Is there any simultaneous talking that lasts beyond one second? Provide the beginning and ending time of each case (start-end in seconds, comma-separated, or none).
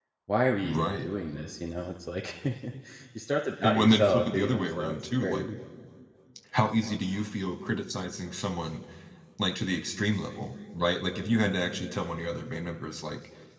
3.6-5.5